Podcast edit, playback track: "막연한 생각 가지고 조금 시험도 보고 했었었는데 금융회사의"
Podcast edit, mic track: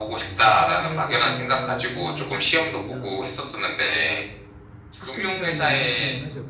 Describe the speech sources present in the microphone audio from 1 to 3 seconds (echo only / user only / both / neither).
both